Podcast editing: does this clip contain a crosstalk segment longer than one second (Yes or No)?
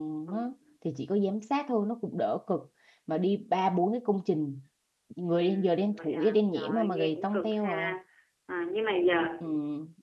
Yes